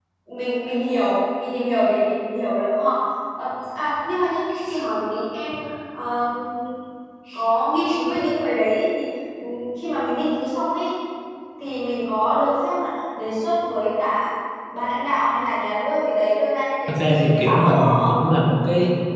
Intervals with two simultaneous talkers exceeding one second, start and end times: 16.9-18.2

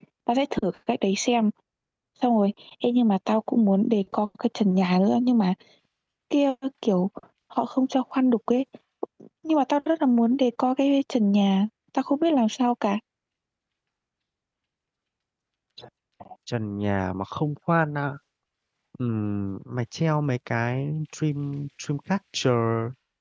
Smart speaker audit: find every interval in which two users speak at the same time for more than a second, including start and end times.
none

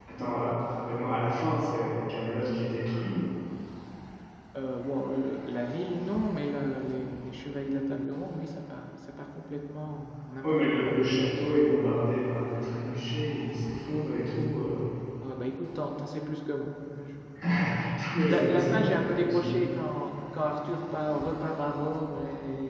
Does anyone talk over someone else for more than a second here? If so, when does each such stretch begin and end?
18.3-19.6

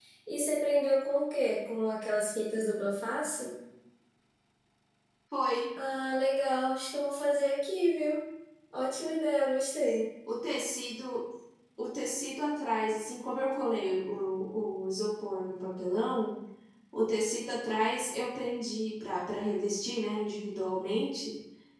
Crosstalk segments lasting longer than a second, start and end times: none

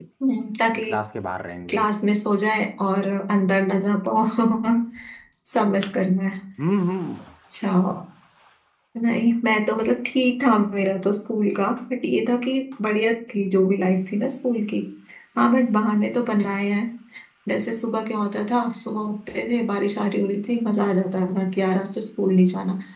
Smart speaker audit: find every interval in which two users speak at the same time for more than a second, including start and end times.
none

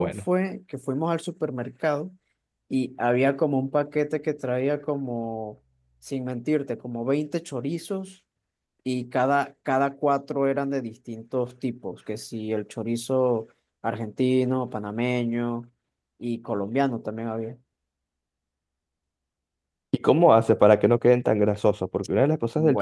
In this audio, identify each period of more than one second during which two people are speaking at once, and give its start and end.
none

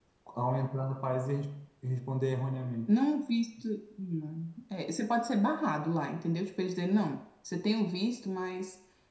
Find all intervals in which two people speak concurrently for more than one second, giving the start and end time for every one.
none

